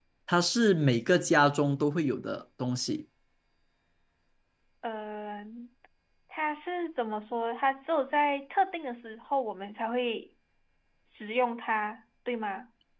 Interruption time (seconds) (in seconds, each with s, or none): none